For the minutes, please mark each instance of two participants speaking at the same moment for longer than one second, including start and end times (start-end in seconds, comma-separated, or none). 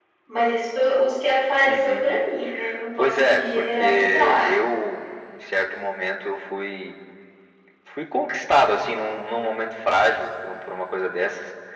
3.0-4.4